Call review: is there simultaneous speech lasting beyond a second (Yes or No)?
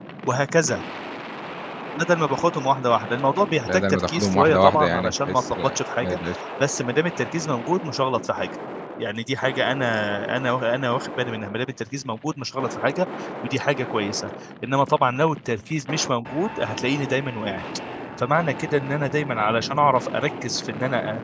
Yes